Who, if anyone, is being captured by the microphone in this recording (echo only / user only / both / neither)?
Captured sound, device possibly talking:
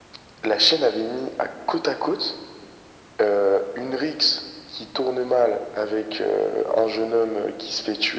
echo only